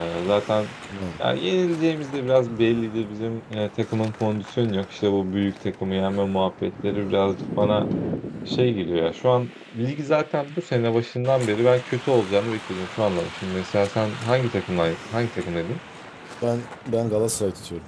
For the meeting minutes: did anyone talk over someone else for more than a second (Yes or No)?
No